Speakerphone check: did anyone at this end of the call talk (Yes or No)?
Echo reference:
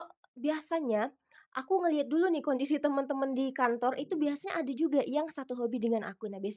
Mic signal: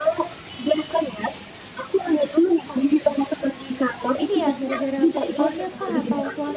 Yes